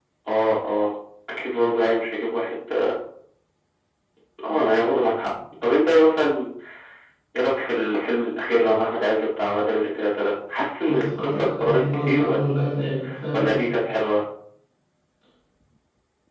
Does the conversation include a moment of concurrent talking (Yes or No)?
Yes